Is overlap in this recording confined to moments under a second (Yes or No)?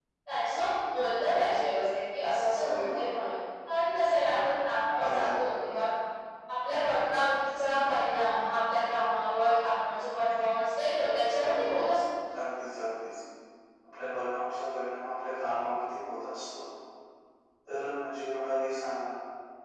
Yes